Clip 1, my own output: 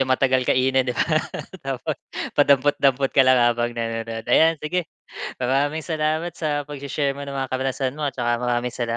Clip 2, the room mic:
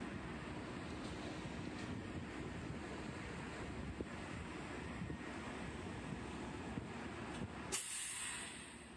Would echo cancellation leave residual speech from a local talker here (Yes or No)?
No